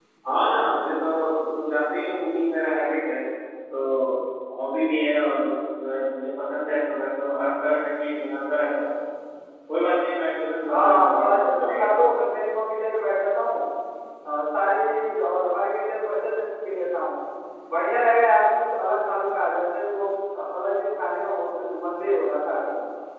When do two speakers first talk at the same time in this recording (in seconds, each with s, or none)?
10.7 s